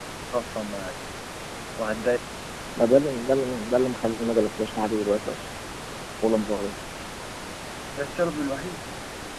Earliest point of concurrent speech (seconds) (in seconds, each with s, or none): none